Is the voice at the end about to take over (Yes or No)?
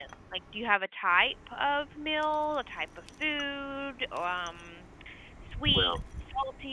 No